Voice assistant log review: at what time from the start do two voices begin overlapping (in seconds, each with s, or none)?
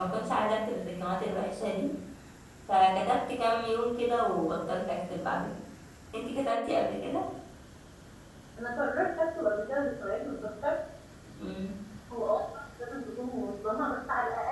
none